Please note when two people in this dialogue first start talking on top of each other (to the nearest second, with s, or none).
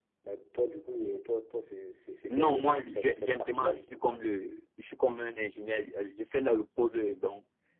2 s